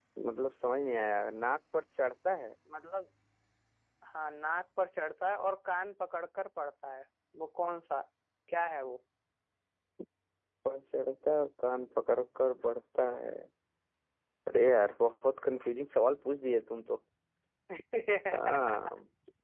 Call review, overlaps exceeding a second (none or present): none